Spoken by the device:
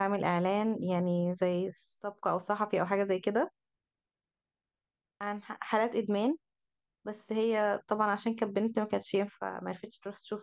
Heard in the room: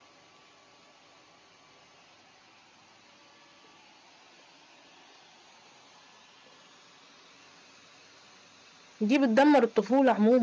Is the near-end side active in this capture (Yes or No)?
Yes